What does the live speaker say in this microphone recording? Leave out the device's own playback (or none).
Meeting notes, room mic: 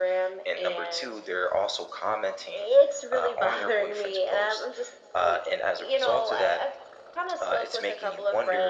none